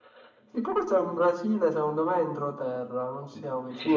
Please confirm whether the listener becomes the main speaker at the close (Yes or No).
Yes